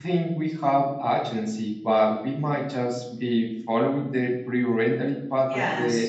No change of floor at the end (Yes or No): No